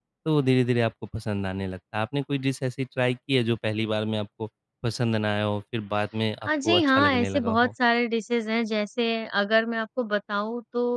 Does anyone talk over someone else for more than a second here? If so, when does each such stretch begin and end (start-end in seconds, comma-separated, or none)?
6.4-7.7